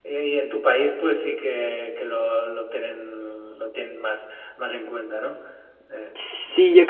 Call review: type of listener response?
taking over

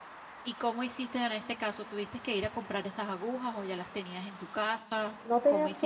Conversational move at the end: taking over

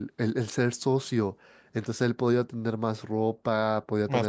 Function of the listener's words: listening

